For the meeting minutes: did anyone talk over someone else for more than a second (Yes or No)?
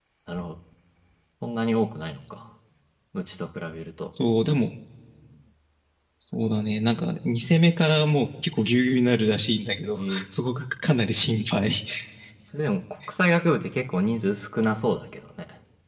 No